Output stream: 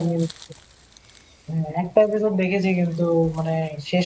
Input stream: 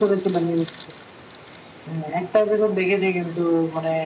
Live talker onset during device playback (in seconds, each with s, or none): none